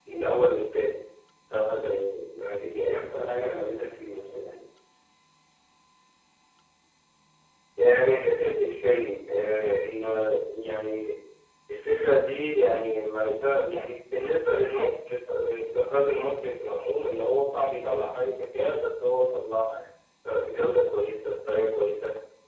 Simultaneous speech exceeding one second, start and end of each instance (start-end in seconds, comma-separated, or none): none